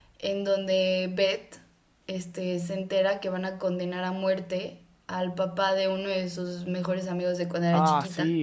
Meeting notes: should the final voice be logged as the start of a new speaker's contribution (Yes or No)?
Yes